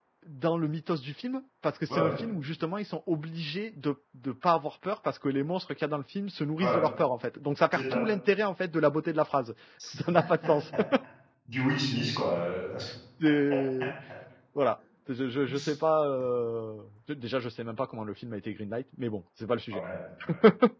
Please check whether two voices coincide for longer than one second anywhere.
No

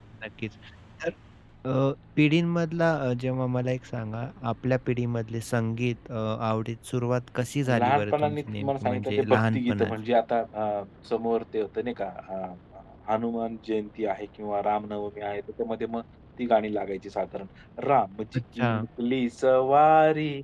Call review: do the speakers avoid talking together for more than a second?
No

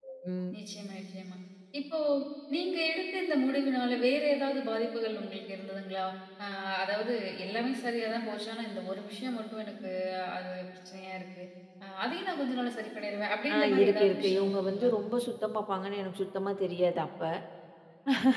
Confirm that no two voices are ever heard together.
No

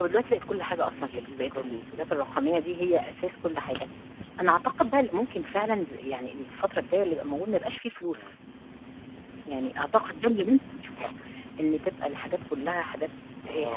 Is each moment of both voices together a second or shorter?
No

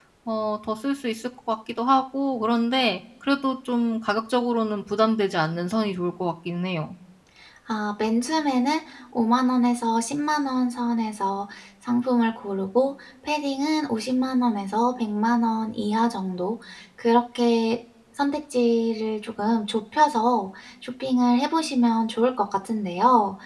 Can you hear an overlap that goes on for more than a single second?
No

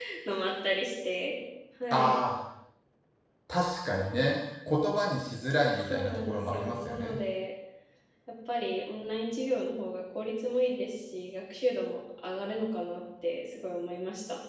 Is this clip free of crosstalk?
No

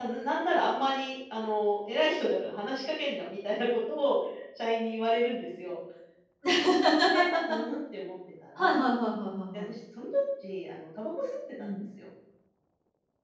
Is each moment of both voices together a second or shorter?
Yes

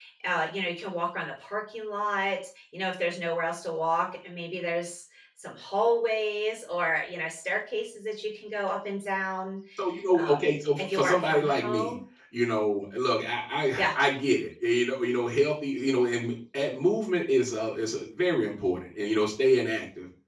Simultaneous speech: Yes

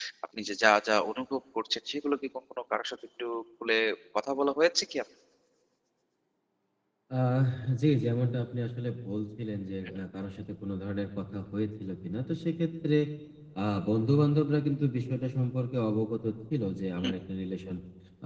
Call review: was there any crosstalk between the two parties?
No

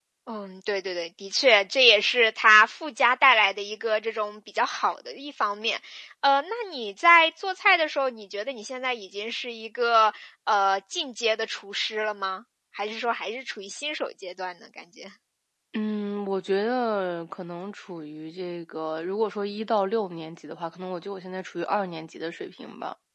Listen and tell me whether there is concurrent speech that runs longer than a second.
No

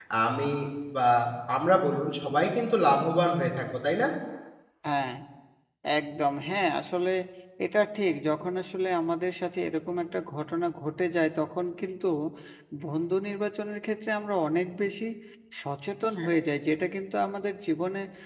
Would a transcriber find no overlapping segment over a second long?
Yes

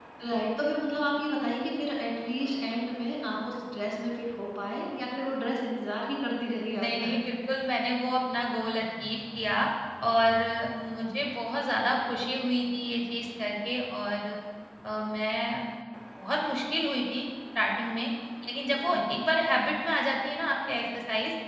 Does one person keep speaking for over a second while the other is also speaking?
No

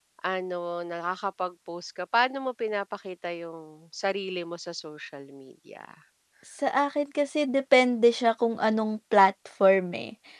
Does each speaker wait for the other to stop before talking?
Yes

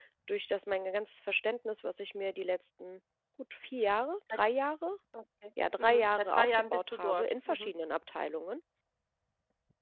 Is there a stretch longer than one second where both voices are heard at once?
Yes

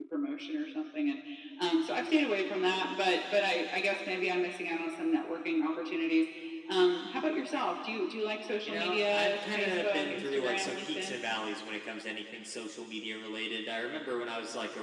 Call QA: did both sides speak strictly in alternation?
No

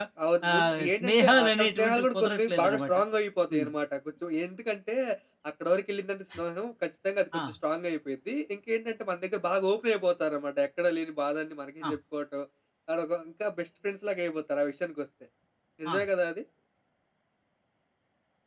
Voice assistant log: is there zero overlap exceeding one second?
No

